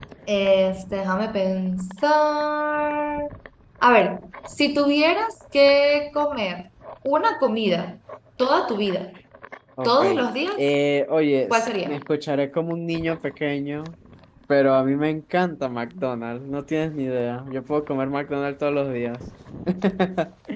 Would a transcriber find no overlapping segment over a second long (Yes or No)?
Yes